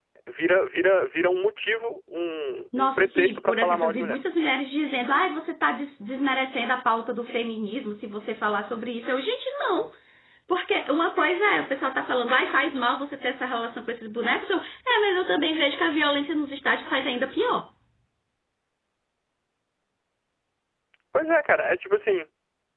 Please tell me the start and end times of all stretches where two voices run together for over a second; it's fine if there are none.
2.8-4.2

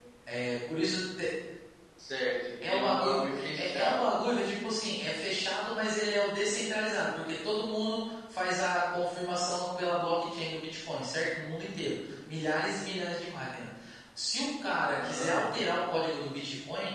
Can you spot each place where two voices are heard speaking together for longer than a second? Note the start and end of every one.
2.7-4.1

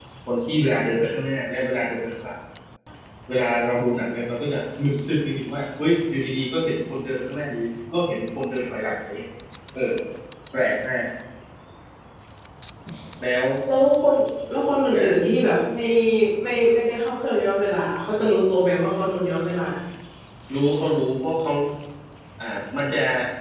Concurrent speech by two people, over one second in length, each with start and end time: none

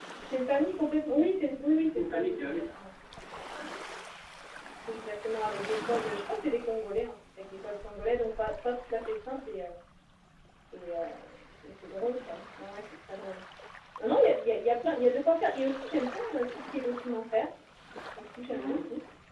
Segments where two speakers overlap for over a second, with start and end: 1.2-2.6

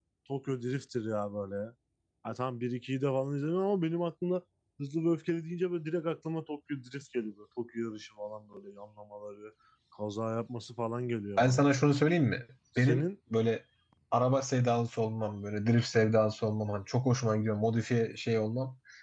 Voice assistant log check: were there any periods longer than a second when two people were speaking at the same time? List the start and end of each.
none

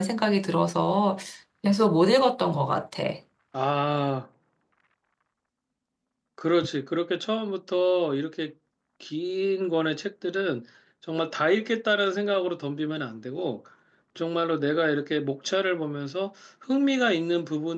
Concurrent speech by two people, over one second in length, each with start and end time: none

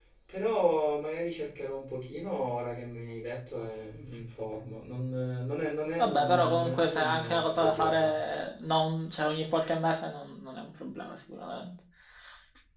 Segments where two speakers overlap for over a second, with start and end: 6.0-8.1

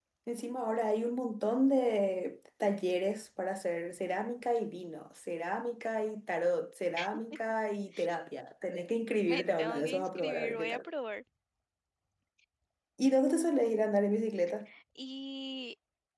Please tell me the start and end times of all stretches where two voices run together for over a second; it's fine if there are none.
9.3-10.9

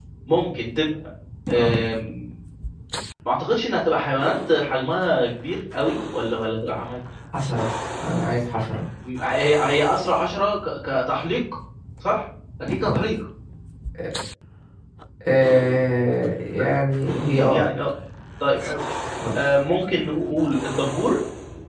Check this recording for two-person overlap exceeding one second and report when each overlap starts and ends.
none

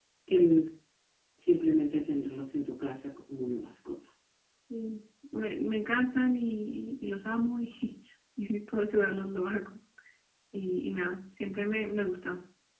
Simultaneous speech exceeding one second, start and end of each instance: none

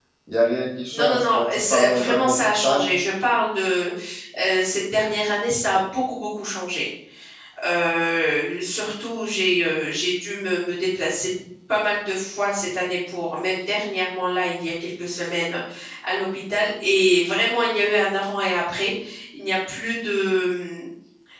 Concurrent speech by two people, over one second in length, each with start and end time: 0.9-2.9

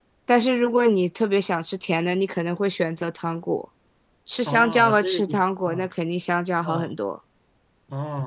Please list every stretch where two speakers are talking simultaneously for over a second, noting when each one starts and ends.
4.5-5.9

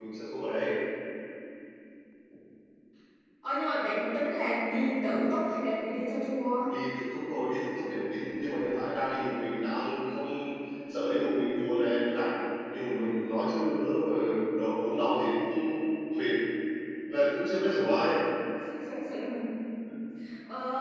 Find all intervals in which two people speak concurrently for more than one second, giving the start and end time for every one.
none

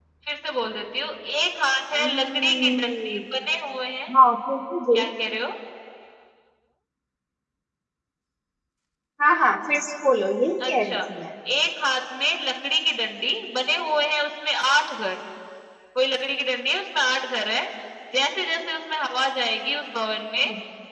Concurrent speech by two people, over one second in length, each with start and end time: 2.0-3.2

